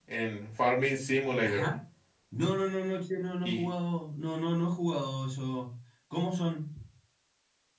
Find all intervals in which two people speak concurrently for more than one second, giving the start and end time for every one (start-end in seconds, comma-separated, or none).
none